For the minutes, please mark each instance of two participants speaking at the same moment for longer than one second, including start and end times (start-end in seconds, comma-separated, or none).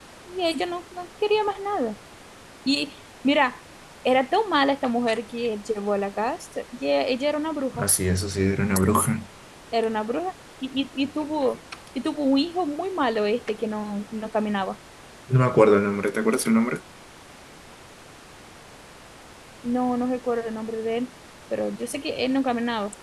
none